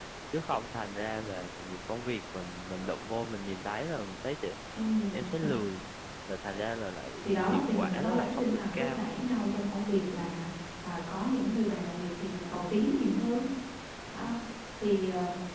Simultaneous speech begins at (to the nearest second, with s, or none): 7 s